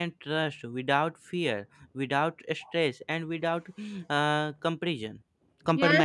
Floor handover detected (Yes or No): Yes